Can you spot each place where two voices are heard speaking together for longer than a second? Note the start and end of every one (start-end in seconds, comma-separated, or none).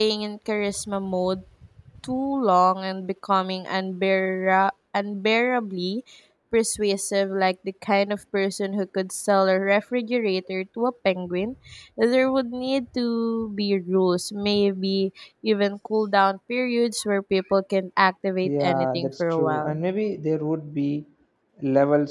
18.4-19.8